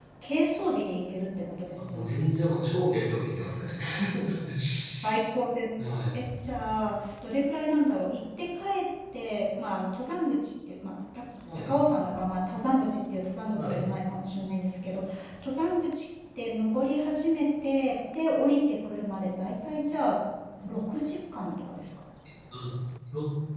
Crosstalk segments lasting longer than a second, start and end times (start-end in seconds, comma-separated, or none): none